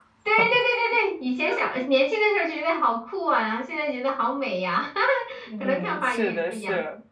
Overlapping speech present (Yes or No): Yes